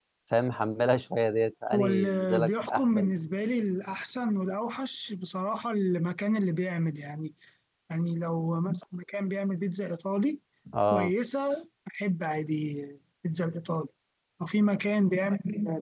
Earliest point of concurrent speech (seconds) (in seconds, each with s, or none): 1.7 s